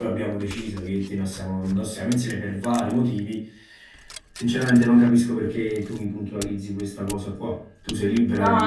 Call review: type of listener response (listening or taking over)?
taking over